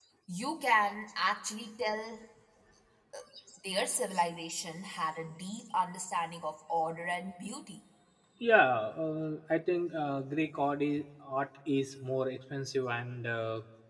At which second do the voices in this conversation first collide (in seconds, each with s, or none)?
none